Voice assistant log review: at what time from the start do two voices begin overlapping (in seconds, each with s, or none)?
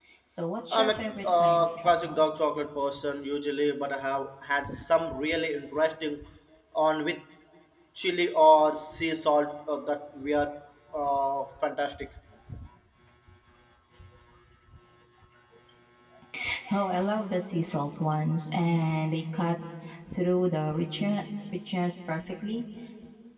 0.7 s